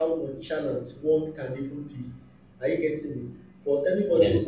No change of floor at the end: Yes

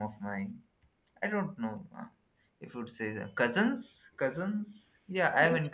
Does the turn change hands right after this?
Yes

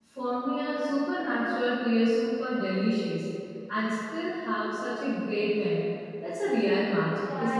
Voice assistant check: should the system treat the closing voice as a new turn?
Yes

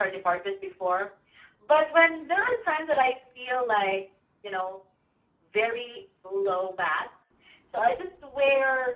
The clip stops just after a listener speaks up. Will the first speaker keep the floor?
Yes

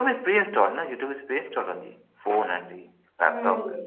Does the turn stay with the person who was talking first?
No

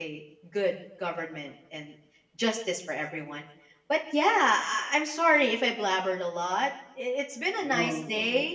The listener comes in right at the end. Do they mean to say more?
No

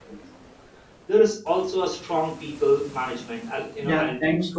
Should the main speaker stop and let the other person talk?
Yes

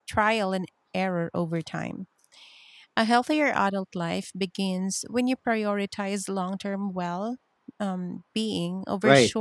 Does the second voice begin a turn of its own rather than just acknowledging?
Yes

